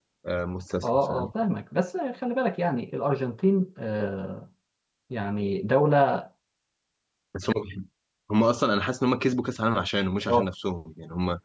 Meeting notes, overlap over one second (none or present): none